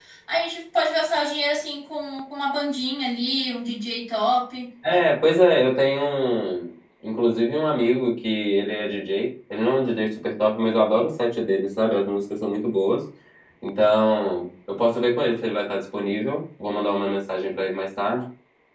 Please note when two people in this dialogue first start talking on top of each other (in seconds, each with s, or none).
none